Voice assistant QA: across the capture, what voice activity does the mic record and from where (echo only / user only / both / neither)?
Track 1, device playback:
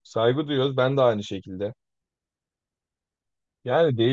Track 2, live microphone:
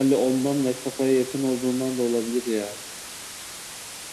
user only